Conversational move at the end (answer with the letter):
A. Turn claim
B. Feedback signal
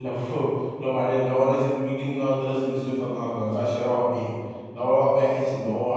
B